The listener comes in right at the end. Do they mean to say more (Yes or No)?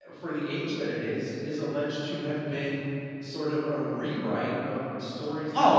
Yes